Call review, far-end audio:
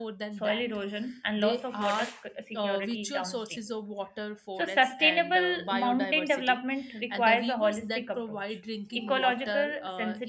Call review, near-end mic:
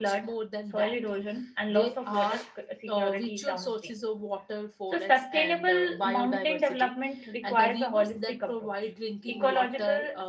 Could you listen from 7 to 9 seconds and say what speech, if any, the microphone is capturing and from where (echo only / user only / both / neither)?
echo only